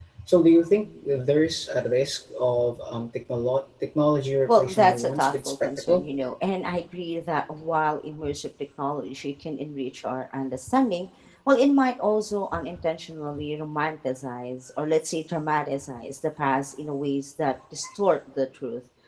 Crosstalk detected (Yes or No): Yes